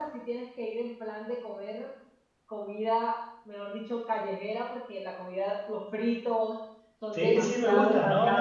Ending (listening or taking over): taking over